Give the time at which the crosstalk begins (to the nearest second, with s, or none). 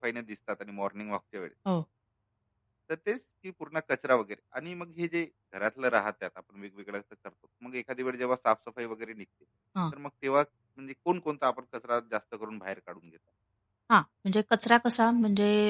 none